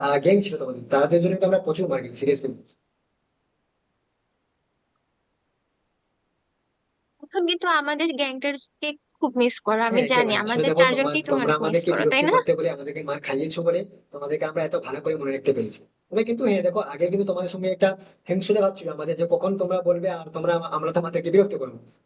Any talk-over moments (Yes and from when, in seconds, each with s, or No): Yes, from 9.9 s